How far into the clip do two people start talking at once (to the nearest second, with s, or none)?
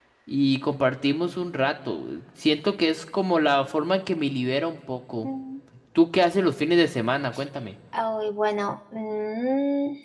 none